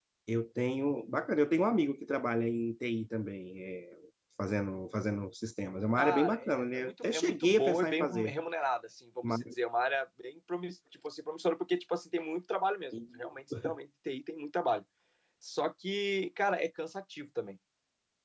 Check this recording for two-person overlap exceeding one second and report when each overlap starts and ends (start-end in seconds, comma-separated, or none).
6.0-8.3